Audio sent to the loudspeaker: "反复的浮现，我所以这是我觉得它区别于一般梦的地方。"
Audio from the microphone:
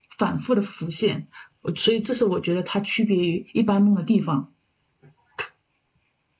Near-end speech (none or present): none